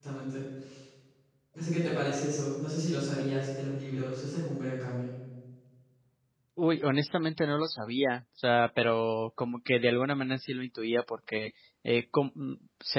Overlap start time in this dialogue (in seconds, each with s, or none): none